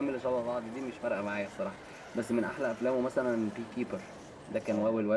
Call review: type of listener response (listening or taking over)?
taking over